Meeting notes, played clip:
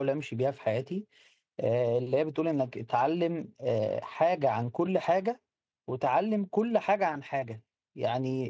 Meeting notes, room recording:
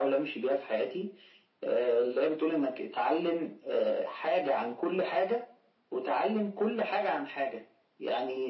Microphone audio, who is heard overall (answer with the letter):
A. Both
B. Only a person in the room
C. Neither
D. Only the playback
D